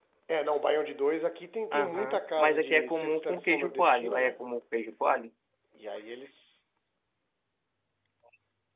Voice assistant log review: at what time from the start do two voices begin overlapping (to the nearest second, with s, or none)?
2 s